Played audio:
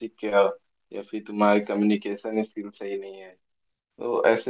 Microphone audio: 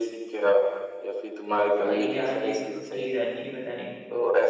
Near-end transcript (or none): भाई यार ये तो चीज अच्छी बताई